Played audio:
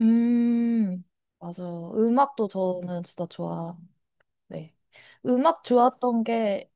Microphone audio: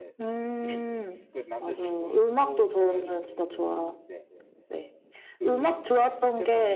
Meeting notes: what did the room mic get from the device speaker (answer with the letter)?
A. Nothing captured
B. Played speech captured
B